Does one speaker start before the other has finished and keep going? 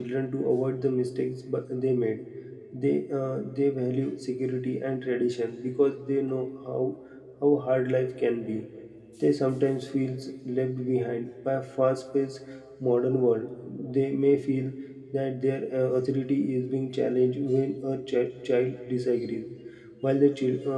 No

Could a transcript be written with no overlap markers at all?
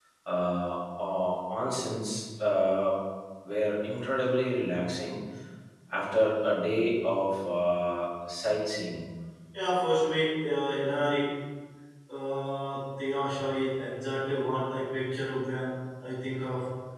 Yes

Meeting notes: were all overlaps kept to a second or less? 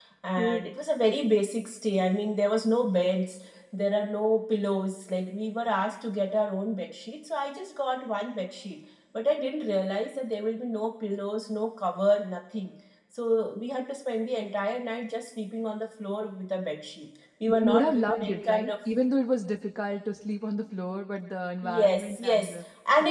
No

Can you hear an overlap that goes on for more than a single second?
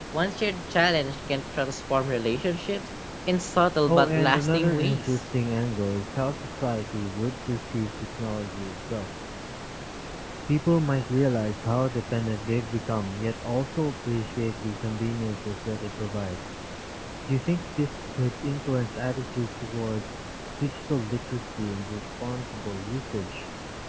Yes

